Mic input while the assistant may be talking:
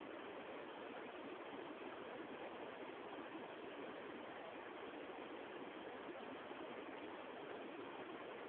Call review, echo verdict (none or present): none